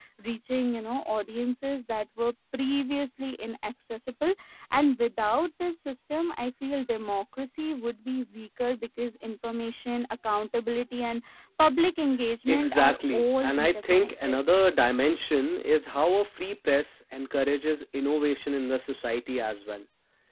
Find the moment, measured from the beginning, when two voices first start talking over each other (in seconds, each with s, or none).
12.5 s